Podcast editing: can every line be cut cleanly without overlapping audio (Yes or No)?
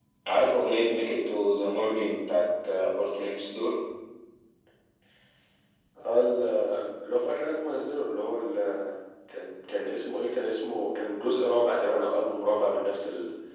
Yes